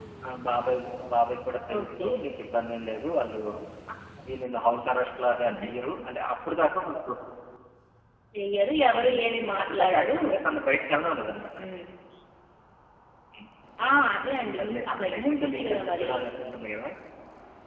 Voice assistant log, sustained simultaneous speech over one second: present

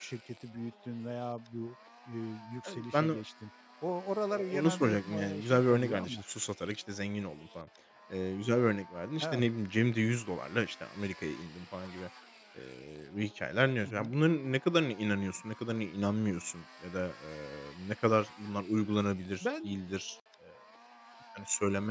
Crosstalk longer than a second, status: present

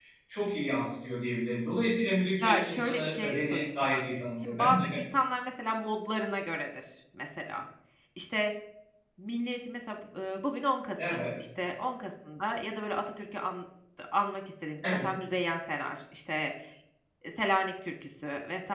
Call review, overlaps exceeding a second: present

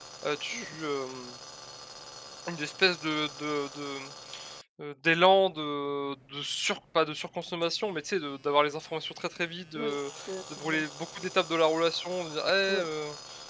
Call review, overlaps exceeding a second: none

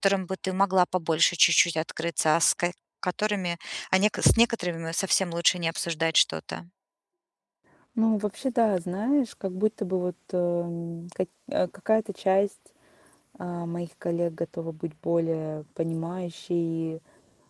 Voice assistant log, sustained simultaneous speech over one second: none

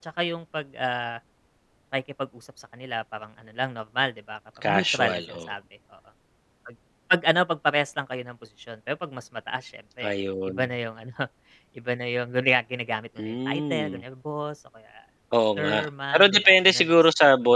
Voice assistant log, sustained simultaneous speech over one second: present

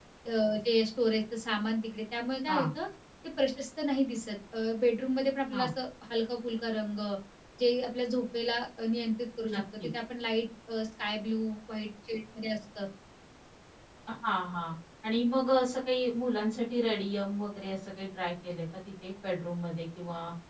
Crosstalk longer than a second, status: none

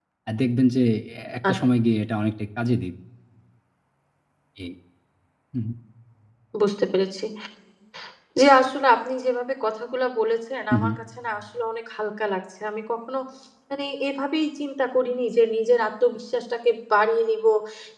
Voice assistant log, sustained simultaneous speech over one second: none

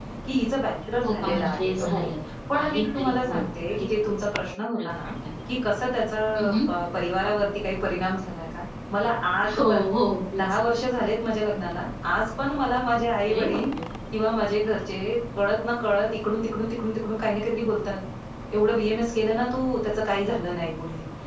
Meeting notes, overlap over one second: present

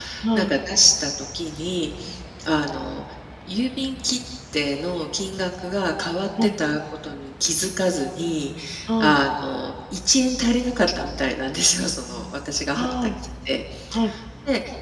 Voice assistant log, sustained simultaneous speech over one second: none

